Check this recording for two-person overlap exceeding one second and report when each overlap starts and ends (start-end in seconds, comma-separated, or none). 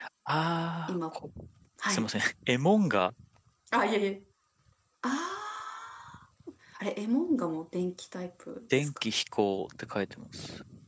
none